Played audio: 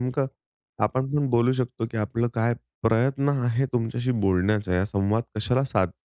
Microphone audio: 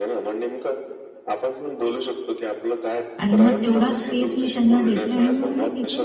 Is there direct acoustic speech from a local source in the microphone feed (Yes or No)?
Yes